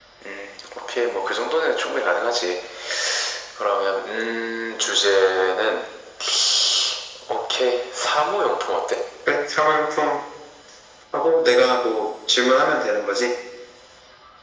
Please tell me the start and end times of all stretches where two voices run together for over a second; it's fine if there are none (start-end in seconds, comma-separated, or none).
none